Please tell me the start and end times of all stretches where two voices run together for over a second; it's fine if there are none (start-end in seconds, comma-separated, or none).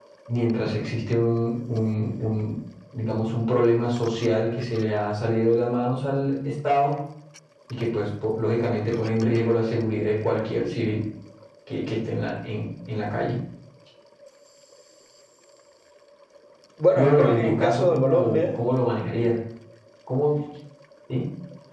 17.0-18.4